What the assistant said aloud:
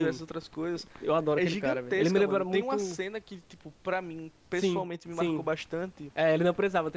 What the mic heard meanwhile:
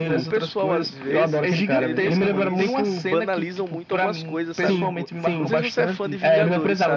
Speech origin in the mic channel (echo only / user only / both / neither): both